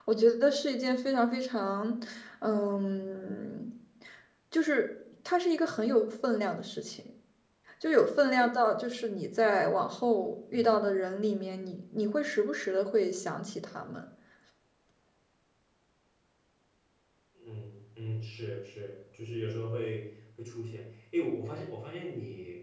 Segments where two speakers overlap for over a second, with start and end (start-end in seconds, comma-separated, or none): none